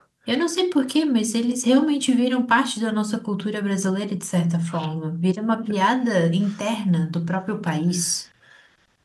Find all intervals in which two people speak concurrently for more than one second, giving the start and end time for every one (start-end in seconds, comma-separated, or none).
none